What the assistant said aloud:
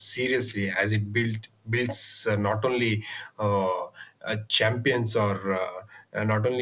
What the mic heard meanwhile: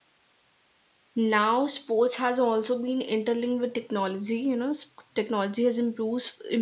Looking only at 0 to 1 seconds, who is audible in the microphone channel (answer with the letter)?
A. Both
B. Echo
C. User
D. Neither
D